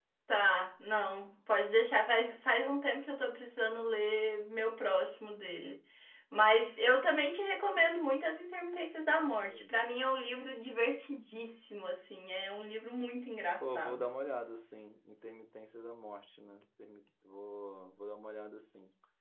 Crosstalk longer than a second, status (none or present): none